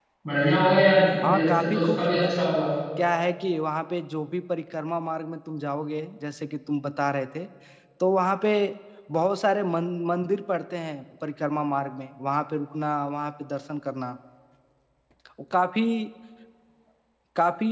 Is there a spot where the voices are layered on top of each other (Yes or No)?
Yes